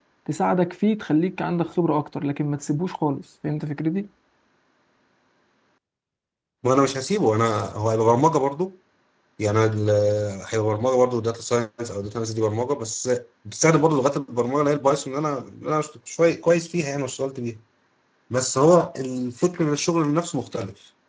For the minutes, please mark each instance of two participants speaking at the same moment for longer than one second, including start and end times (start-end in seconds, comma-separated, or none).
none